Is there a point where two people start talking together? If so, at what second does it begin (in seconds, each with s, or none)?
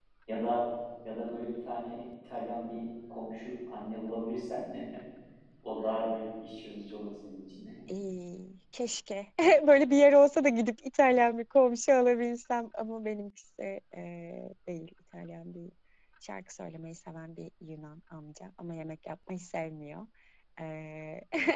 none